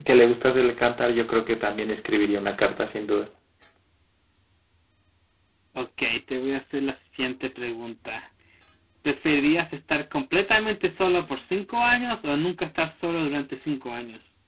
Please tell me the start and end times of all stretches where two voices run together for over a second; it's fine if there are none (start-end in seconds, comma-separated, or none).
none